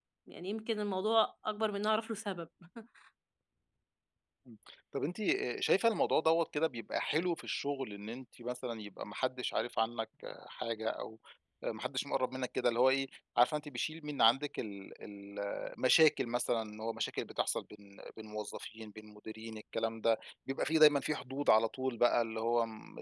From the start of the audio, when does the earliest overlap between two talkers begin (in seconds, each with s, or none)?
none